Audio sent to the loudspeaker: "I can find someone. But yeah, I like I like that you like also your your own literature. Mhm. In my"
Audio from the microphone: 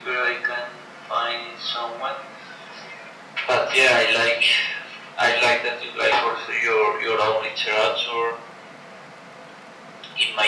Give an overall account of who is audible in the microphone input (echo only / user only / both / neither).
echo only